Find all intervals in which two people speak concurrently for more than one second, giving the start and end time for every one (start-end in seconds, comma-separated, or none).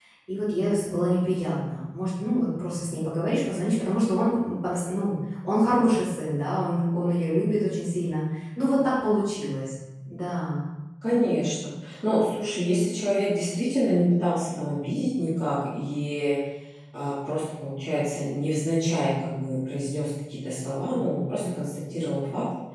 none